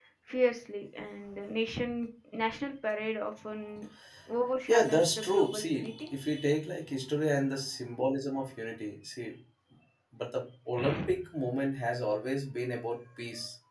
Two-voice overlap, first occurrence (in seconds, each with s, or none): 4.7 s